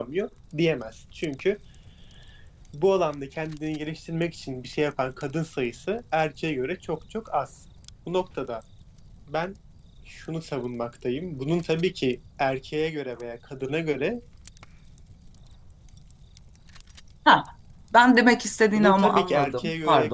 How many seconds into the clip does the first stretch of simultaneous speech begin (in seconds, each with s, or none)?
18.8 s